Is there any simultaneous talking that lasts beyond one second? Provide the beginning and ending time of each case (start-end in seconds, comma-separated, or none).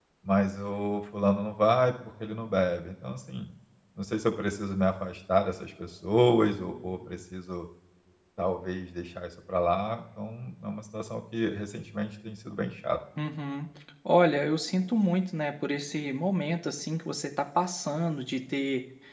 none